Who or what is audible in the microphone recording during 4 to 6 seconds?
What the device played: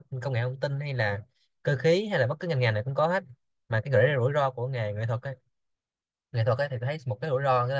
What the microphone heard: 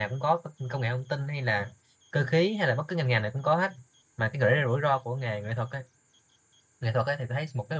echo only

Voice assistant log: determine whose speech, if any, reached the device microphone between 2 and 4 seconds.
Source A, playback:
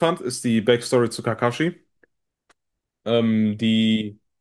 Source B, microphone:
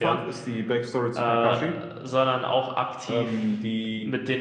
both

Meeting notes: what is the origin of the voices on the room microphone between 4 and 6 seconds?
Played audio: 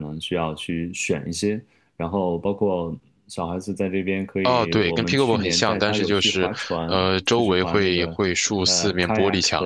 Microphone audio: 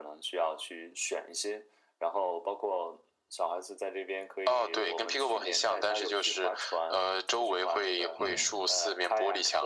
echo only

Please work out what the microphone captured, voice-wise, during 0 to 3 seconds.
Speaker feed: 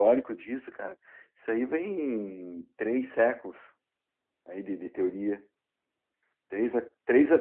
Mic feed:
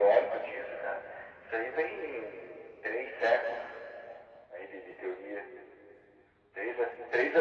echo only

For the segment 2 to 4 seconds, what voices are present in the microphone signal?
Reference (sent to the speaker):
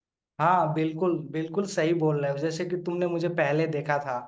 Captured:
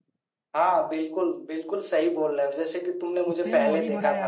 both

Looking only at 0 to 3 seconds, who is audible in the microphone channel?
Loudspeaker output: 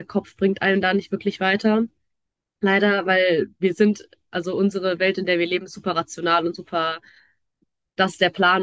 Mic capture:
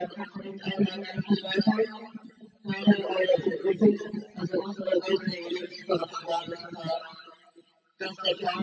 echo only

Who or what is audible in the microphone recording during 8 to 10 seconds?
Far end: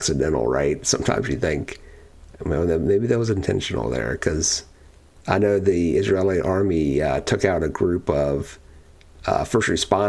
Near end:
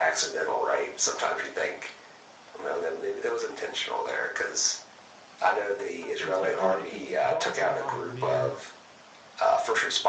both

